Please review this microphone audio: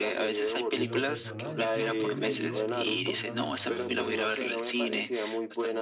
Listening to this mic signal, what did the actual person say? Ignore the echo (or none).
en lo personal yo preferiría, yo elegiría viajar al,